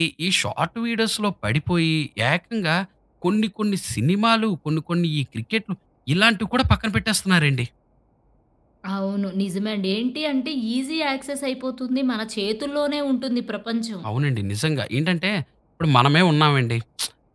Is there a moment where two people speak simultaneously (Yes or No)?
No